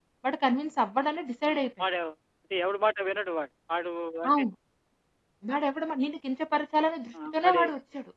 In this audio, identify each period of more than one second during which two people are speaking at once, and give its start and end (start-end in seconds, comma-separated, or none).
none